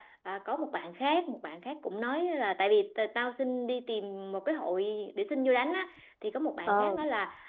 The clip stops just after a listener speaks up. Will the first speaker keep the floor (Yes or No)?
Yes